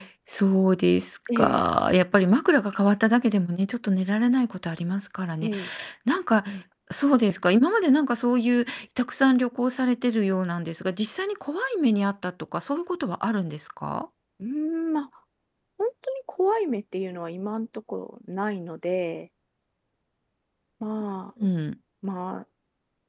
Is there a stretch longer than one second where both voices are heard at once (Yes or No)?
No